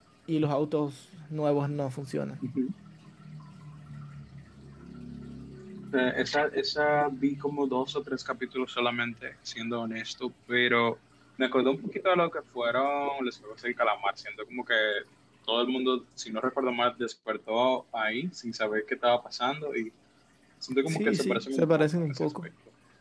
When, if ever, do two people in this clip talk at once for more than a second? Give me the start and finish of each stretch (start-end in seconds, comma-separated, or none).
20.9-22.3